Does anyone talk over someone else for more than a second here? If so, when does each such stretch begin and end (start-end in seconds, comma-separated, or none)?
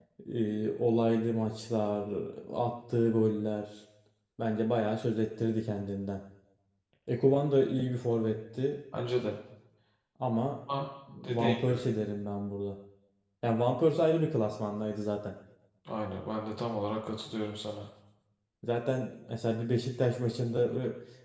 none